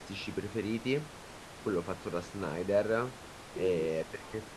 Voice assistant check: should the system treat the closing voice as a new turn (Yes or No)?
No